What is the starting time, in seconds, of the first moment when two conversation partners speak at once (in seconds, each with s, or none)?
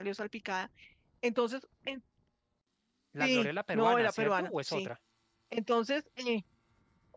3.2 s